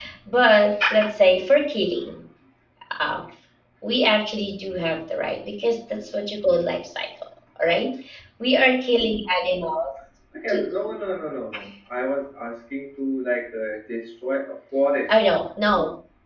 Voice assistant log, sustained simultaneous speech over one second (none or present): none